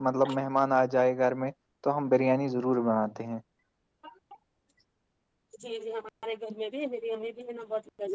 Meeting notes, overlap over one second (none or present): none